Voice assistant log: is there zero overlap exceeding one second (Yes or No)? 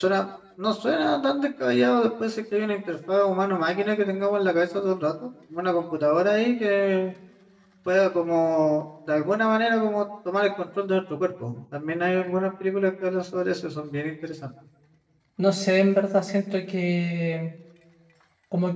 Yes